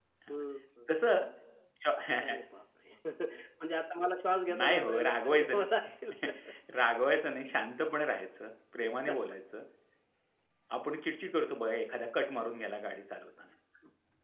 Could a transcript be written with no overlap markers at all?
No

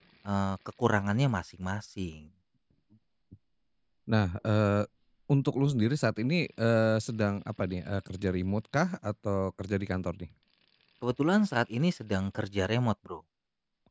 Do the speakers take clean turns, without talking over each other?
Yes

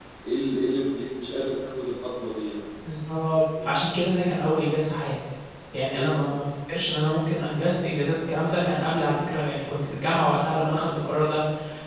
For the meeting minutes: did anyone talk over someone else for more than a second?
No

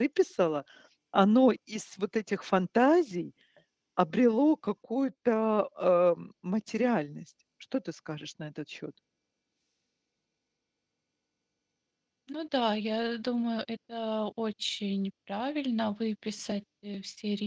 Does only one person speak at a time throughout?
Yes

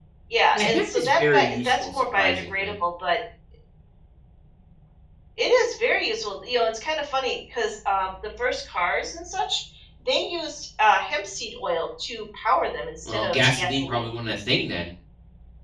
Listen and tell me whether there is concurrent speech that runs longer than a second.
Yes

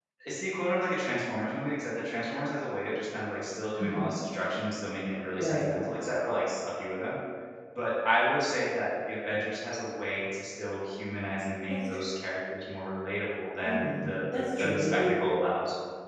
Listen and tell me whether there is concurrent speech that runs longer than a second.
Yes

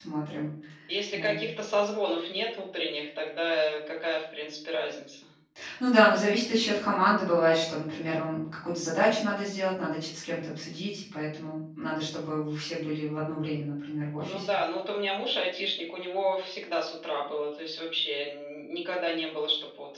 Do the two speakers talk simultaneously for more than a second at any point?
No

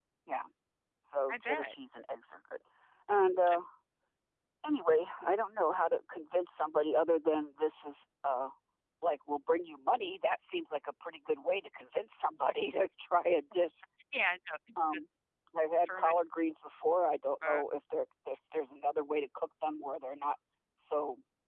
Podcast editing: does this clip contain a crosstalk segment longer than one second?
No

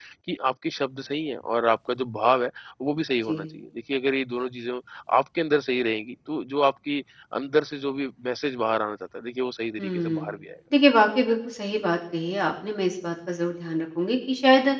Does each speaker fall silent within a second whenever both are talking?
Yes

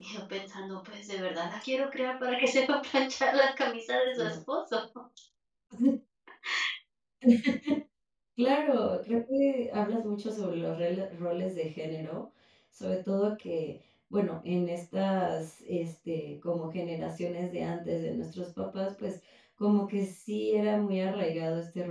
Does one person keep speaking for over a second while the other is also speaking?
No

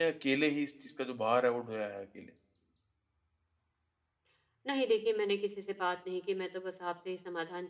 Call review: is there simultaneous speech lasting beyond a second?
No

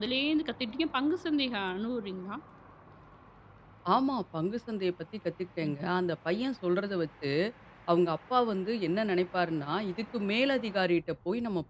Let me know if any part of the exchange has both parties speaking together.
No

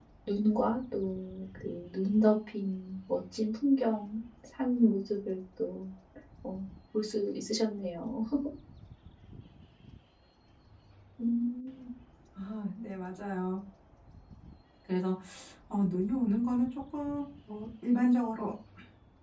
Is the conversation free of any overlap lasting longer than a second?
Yes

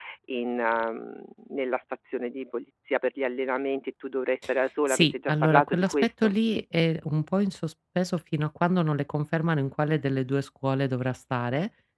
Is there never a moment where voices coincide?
No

